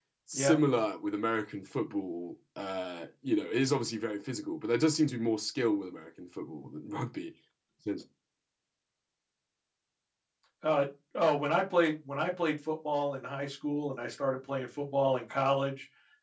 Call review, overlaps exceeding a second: none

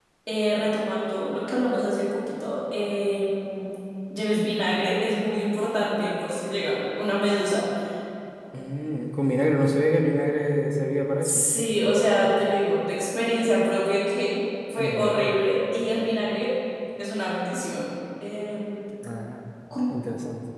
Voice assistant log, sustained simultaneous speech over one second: none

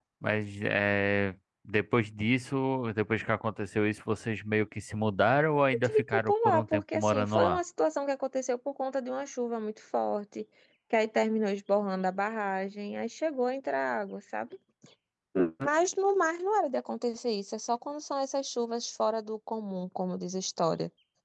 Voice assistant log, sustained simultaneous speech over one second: present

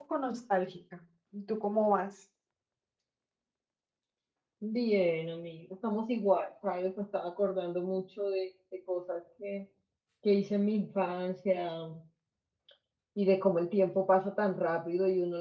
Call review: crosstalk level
none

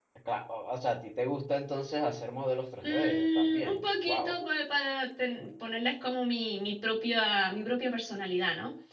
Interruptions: present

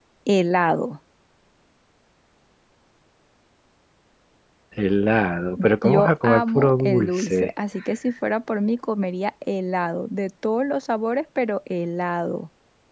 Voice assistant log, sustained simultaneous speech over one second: present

